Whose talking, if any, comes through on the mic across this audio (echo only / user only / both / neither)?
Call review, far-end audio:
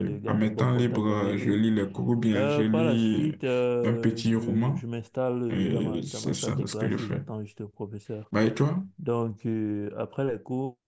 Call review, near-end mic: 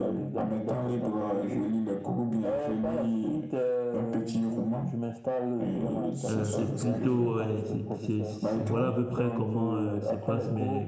both